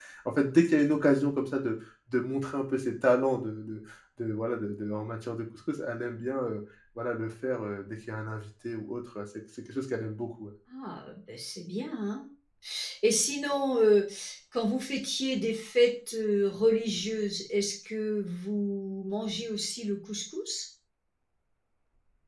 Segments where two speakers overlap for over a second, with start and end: none

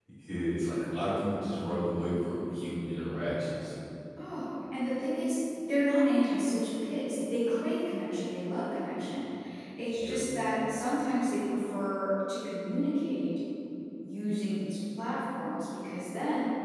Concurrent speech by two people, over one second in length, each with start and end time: none

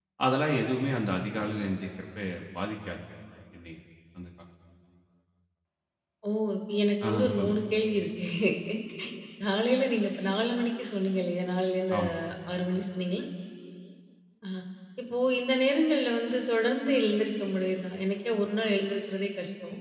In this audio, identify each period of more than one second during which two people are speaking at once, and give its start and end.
none

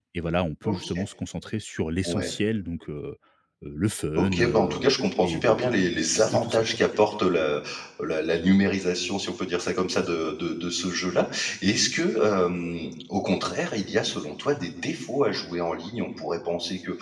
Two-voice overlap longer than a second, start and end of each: 4.2-5.7

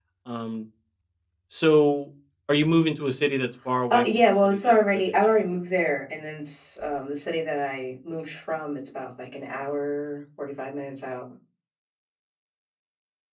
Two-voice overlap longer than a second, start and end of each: 3.9-5.3

